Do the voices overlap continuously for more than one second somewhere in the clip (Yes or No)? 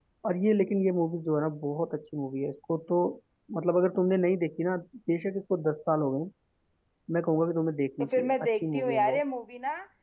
Yes